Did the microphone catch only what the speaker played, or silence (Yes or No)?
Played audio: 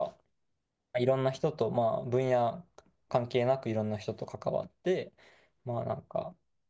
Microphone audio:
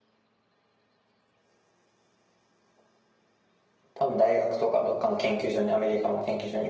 No